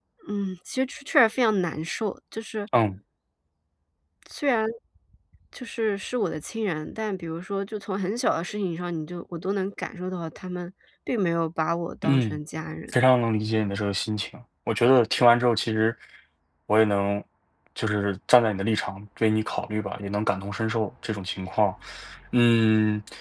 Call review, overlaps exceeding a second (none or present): none